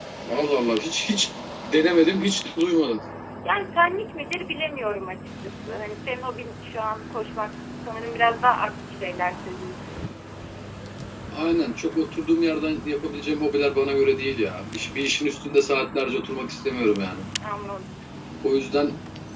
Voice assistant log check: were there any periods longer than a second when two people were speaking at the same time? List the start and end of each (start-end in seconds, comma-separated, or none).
none